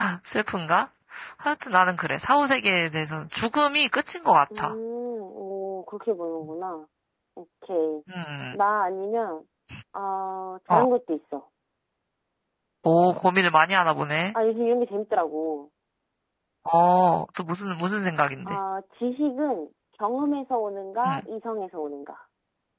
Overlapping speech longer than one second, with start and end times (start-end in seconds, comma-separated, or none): none